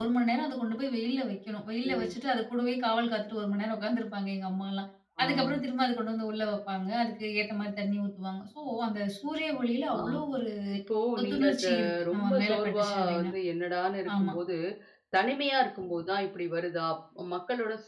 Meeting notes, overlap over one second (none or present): present